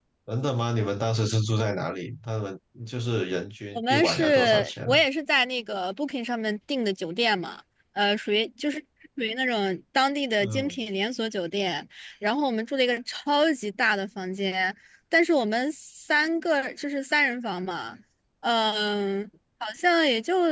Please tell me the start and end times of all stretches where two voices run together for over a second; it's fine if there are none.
3.8-5.0

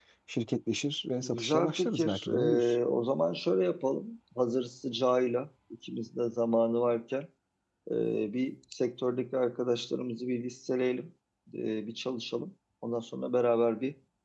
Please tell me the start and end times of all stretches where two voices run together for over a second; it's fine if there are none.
1.2-2.8

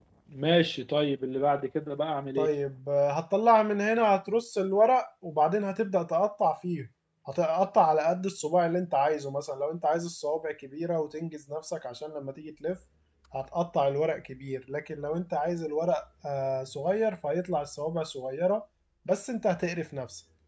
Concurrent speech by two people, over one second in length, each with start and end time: none

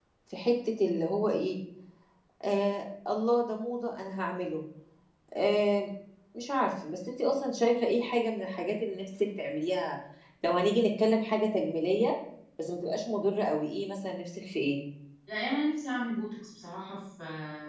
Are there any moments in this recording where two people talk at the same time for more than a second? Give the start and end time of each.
none

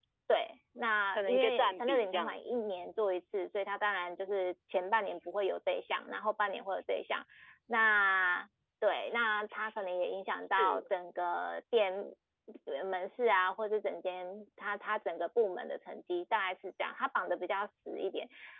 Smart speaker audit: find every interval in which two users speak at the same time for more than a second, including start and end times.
1.1-2.6

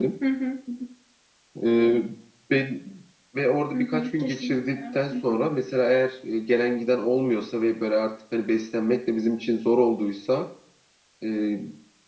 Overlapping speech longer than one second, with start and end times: 3.7-5.4

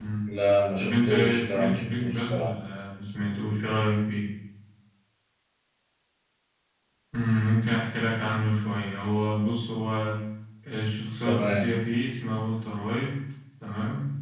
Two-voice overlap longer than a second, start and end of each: 0.8-2.5

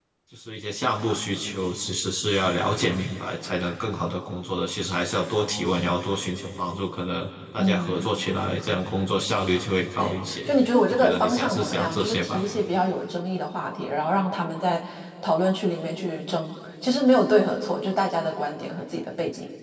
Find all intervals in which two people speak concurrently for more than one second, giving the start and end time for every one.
10.9-12.3

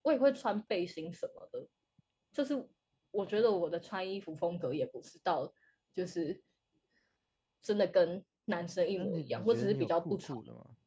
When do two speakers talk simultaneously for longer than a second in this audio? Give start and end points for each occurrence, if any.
9.0-10.4

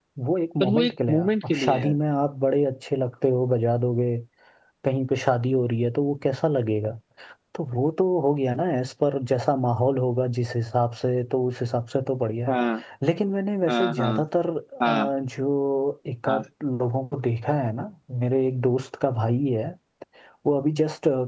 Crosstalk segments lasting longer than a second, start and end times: 0.6-1.9

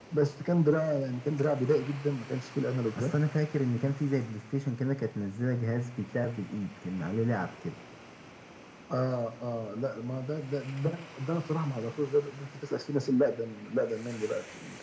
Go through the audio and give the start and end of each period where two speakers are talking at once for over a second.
none

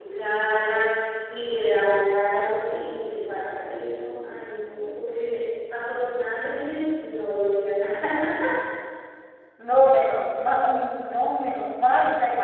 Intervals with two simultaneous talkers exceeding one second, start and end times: none

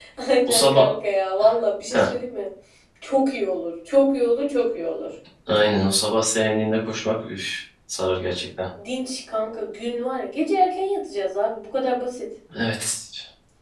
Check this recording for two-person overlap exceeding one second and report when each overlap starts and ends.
none

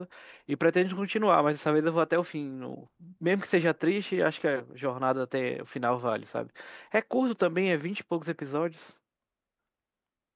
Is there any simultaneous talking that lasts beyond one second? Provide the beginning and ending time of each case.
none

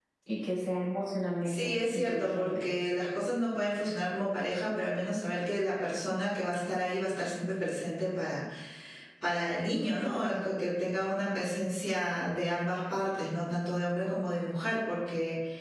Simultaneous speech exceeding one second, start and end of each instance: 1.5-2.7

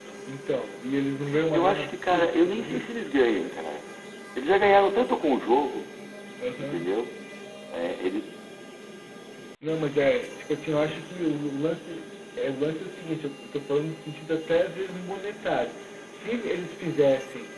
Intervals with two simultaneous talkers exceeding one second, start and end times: 1.5-2.9

